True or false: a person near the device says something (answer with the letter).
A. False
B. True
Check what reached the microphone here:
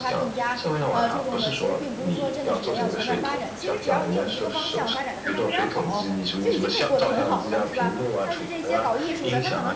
B